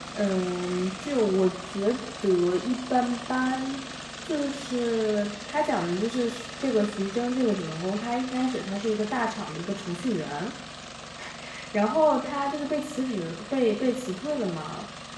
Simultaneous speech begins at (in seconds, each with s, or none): none